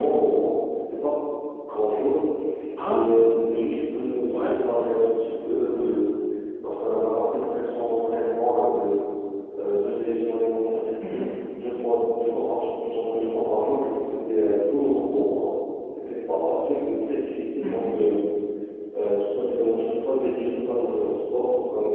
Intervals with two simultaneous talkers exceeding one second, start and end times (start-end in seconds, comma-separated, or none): none